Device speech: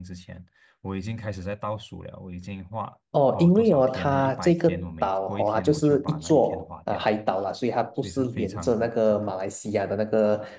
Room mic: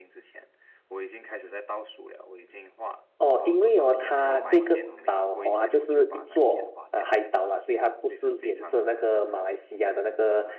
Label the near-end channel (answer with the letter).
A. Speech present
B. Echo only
A